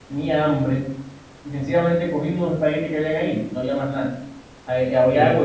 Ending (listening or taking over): listening